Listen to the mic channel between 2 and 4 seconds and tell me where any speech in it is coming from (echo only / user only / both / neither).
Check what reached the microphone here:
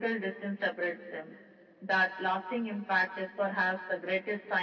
echo only